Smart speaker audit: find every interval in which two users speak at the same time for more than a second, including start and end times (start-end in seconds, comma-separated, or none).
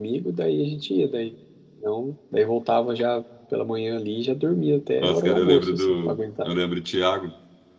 5.0-6.5